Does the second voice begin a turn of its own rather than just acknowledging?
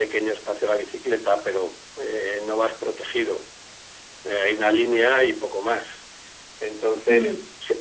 No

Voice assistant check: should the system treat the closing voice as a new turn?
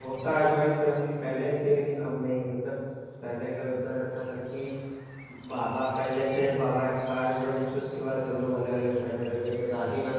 No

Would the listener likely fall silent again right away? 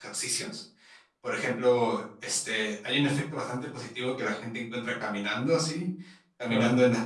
Yes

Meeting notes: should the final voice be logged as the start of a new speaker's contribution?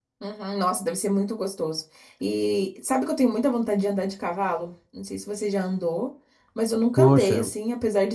No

